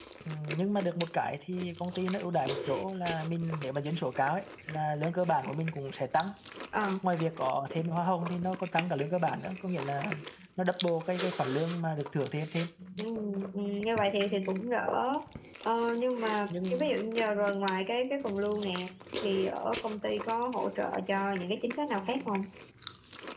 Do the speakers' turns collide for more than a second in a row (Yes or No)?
No